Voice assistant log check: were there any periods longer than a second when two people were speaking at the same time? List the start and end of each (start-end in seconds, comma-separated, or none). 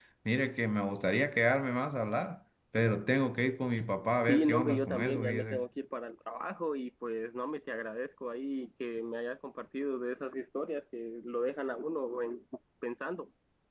4.3-5.6